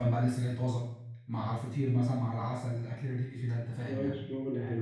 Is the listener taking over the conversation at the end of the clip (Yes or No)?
Yes